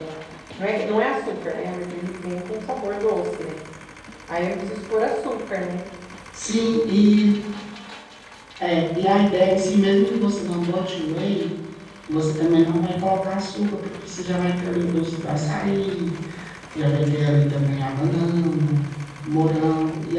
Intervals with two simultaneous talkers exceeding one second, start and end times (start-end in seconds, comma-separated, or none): none